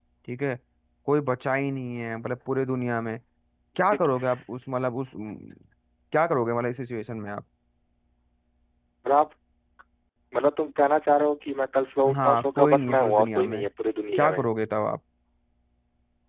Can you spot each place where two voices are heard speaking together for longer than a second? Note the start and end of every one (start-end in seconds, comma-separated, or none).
12.2-13.6